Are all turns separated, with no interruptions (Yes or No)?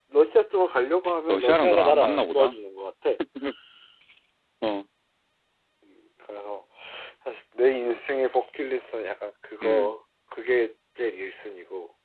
No